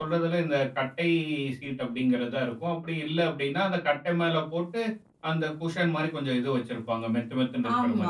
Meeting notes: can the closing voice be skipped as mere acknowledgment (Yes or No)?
No